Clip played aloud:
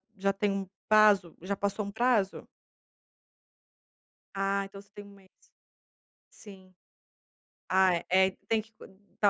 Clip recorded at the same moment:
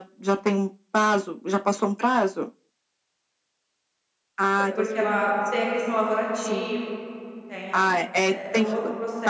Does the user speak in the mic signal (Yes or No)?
Yes